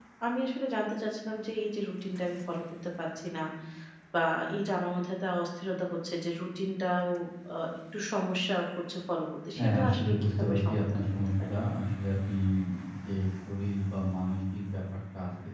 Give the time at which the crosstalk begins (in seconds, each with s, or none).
9.5 s